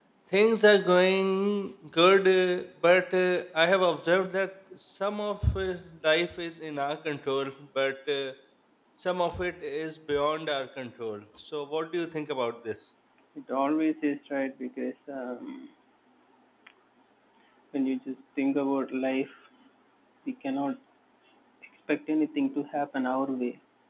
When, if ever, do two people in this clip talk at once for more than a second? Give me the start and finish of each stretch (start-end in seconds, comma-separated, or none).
none